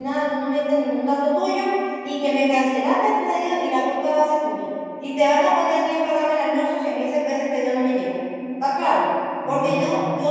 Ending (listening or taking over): listening